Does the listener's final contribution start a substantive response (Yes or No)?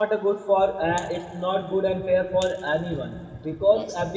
No